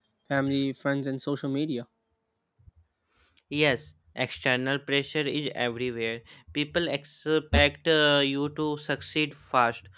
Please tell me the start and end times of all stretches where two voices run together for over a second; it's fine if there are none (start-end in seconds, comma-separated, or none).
none